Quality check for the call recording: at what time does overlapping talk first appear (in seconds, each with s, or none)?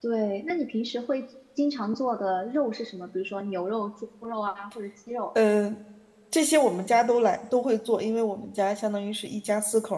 none